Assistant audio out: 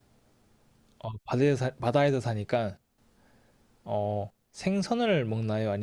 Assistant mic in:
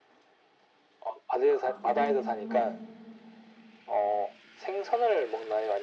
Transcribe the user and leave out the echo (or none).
아, 애매하긴 한데,